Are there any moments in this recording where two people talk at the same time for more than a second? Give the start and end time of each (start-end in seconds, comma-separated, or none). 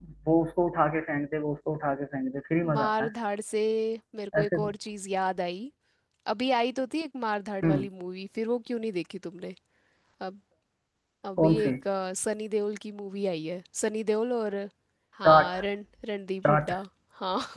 none